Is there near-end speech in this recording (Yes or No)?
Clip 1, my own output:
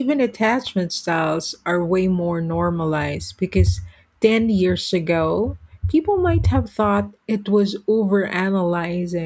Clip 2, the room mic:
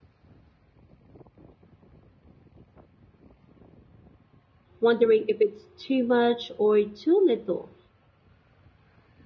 Yes